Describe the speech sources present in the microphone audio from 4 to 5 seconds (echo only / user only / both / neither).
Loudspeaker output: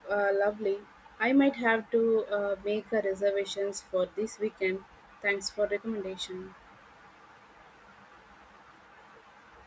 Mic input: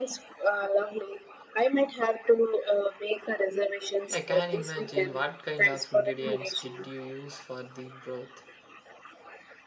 both